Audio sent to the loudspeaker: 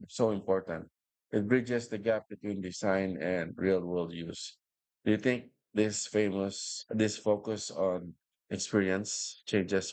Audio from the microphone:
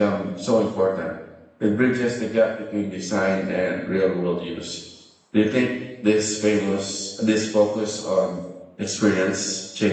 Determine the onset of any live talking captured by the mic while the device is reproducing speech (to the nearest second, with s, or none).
none